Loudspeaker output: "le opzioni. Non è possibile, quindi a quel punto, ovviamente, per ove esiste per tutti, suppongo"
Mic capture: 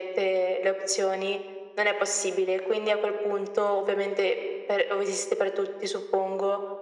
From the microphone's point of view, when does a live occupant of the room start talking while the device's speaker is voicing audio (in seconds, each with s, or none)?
none